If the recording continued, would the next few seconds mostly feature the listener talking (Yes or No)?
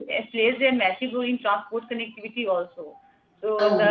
No